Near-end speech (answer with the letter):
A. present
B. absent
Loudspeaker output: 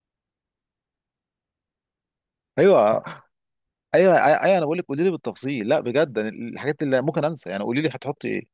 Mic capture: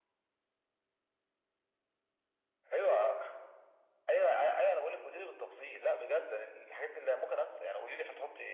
B